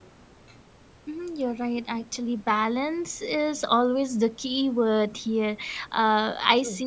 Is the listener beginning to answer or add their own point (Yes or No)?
No